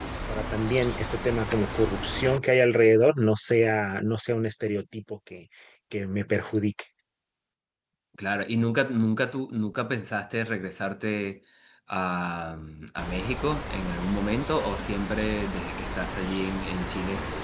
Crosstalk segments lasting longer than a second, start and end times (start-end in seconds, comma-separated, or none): none